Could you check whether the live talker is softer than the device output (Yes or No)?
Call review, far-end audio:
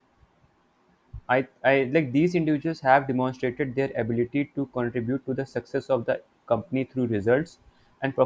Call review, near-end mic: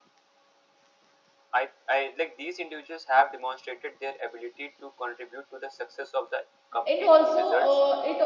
No